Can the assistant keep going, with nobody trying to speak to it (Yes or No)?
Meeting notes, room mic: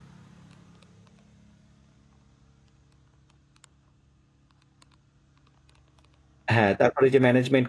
No